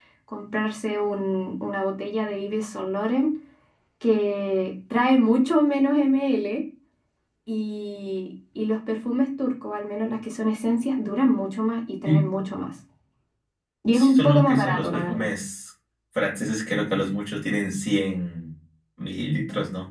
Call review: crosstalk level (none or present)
present